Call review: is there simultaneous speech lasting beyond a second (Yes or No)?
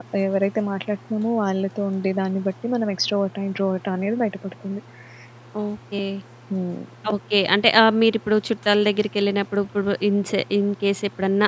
No